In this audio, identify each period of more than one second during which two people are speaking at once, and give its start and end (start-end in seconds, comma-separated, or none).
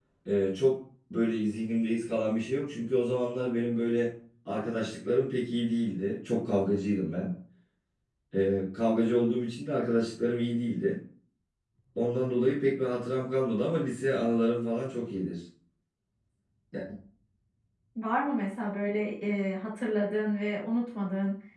none